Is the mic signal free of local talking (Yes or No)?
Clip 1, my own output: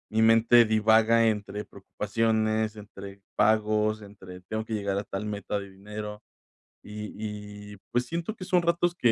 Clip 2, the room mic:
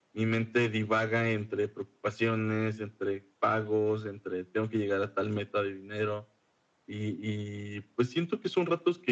Yes